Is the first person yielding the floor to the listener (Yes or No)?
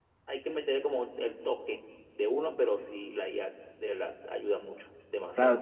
Yes